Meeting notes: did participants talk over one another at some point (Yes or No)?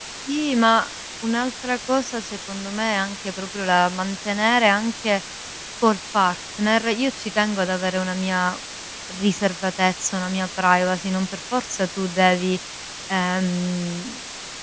No